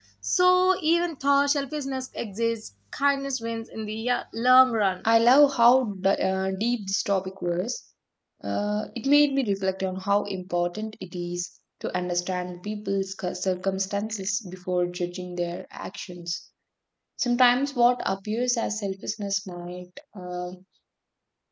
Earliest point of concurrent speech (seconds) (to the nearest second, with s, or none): none